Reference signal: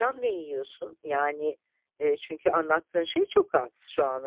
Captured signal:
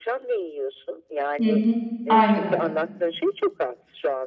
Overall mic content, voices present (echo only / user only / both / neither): both